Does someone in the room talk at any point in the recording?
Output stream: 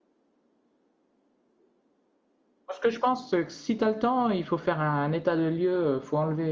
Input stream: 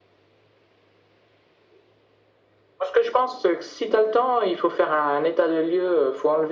No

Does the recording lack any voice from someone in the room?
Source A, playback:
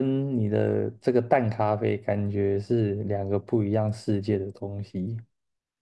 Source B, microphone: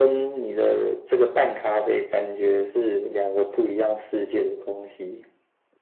Yes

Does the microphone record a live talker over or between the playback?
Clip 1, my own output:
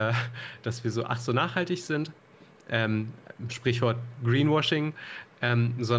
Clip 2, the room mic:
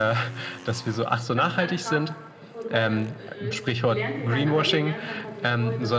Yes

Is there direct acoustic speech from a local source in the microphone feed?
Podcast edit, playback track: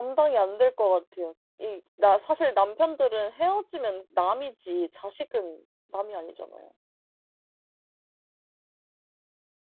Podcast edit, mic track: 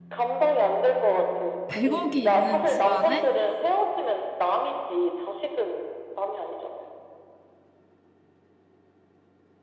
Yes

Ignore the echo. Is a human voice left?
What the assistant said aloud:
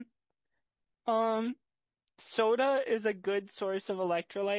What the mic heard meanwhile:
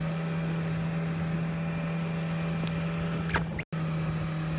No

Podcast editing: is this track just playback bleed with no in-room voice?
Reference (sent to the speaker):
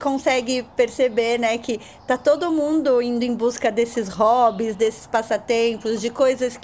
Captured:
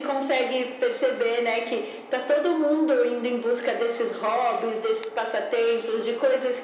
Yes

